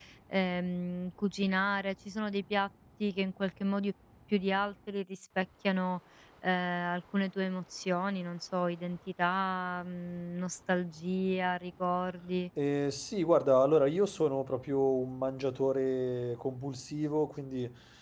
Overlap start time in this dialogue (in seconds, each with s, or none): none